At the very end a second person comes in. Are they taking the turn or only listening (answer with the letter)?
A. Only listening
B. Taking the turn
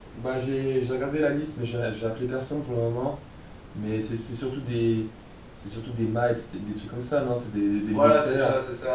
B